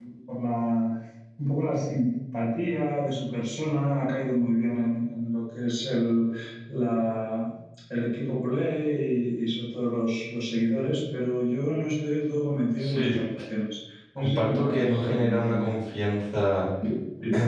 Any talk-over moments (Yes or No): Yes